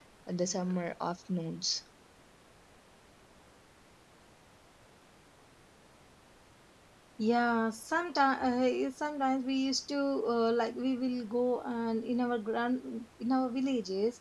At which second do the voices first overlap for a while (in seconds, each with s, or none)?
none